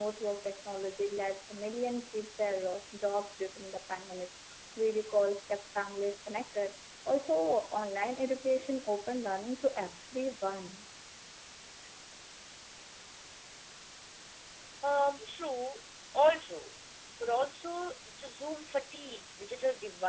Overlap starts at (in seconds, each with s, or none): none